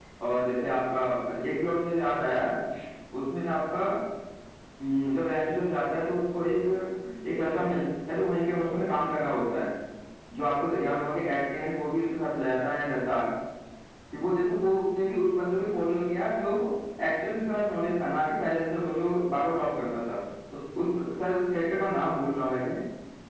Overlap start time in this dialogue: none

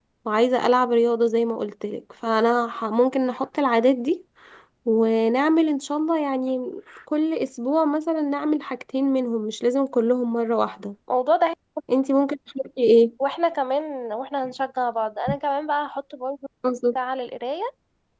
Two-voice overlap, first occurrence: none

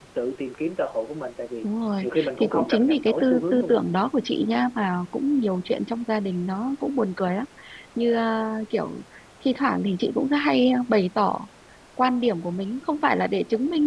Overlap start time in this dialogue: 2.0 s

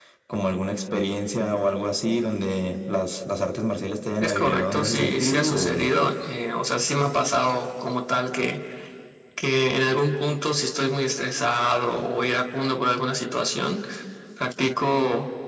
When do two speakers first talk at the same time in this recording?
4.2 s

